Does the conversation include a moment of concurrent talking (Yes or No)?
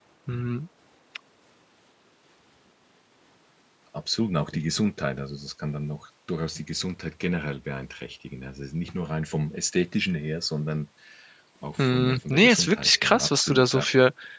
Yes